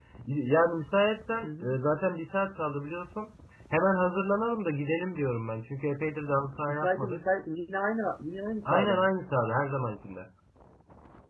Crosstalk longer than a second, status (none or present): none